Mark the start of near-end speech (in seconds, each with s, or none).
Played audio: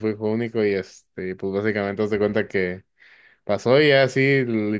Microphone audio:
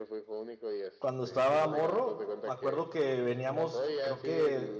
1.0 s